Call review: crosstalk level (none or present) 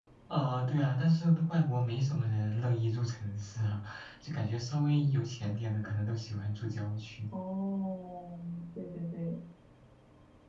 none